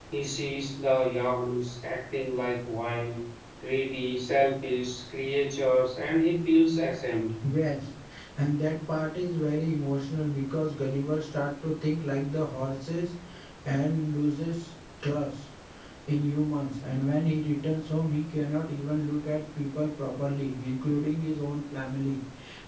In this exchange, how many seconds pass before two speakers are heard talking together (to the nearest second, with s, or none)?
none